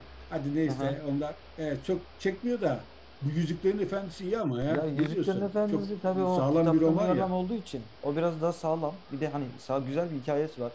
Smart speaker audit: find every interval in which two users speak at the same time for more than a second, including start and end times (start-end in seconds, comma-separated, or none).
4.7-7.3